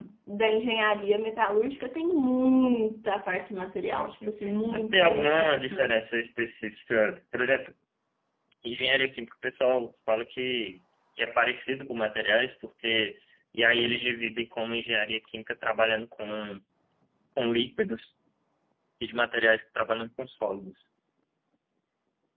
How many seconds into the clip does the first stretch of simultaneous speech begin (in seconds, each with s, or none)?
3.9 s